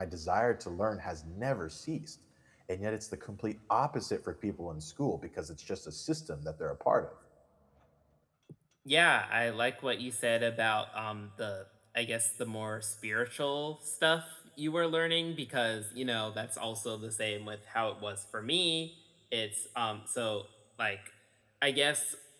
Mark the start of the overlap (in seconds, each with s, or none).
none